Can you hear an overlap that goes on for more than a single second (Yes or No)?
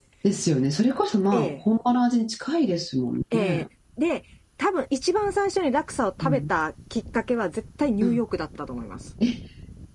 No